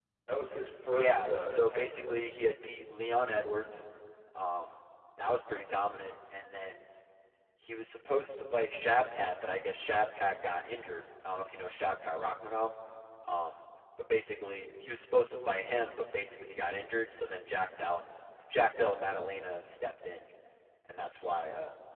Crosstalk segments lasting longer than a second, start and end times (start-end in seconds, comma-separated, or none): 0.8-2.3